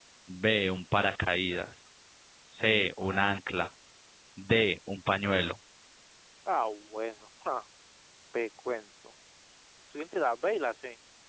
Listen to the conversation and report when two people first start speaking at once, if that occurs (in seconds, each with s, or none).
none